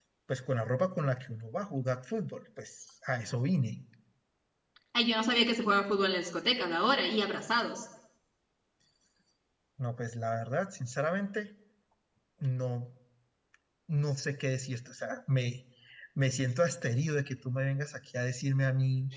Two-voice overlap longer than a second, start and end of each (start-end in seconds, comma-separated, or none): none